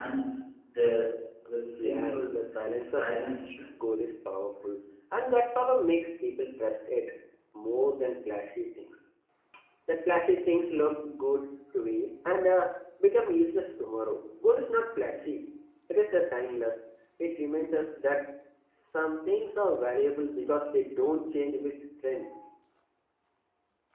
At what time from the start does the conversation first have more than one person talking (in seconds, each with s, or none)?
1.8 s